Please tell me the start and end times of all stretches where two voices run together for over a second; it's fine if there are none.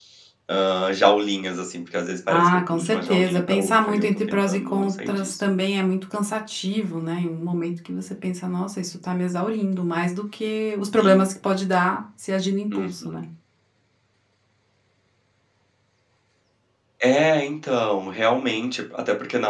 2.3-5.3

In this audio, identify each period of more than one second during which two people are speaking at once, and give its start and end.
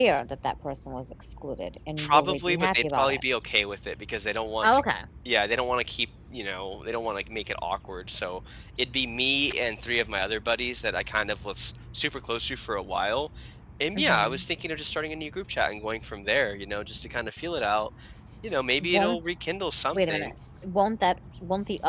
2.0-3.2

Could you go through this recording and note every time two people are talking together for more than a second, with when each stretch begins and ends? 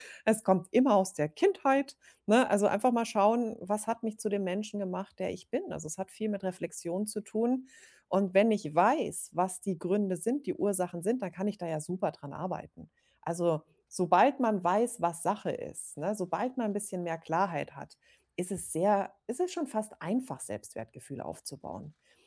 none

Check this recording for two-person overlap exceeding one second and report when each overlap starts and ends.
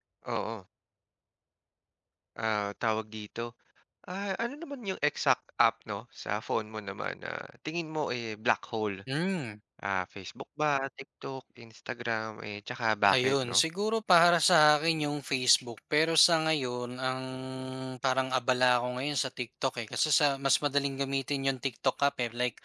none

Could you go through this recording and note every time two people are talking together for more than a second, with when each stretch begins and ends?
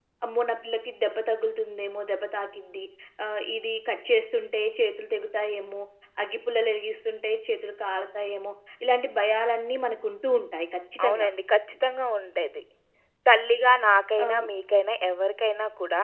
none

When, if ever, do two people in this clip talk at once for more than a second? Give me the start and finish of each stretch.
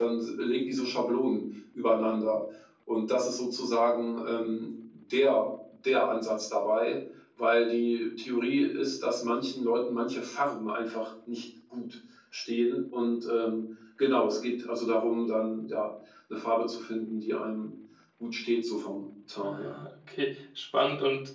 none

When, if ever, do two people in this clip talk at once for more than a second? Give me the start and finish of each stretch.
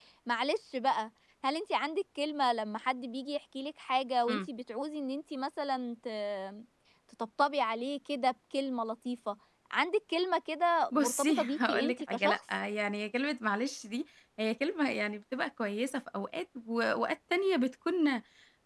10.9-12.4

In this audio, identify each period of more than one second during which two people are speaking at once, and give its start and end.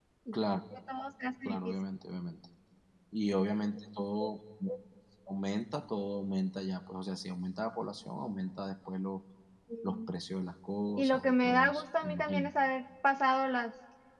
11.0-12.5

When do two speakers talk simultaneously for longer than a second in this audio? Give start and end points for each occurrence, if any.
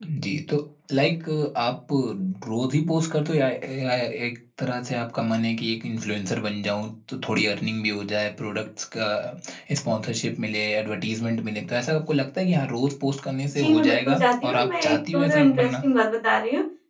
13.5-15.7

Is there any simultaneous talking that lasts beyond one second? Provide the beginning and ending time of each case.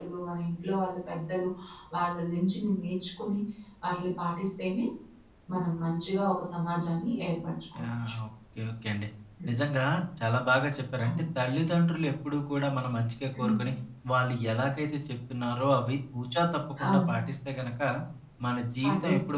none

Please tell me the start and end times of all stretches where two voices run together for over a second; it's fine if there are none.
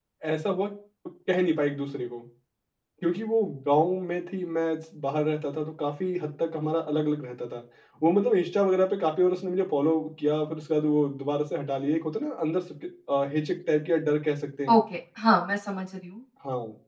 none

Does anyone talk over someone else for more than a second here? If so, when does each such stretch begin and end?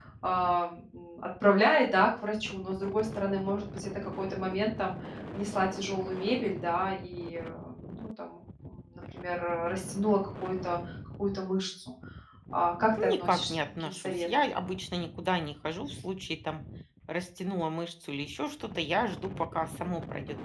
13.2-14.5

